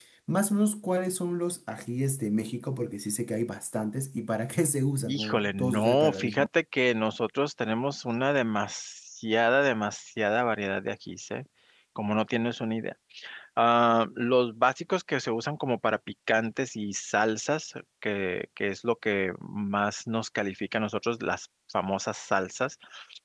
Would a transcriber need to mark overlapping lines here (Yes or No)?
Yes